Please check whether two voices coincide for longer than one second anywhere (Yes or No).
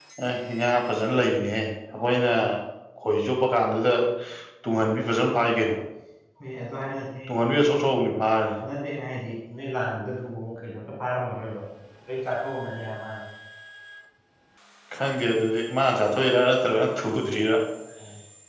No